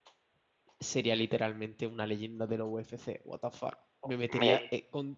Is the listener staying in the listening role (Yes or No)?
Yes